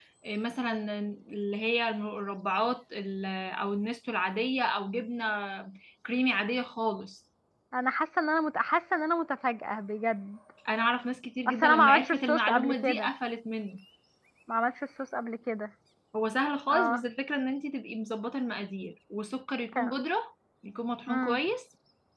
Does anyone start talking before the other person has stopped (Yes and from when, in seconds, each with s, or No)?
Yes, from 11.5 s